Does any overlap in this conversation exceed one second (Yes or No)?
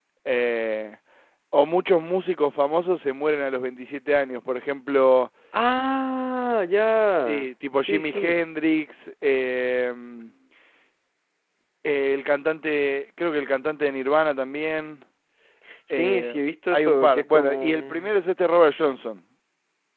Yes